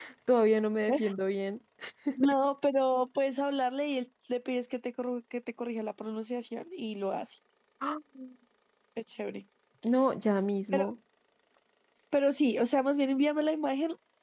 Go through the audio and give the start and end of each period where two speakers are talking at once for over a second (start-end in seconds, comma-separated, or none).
none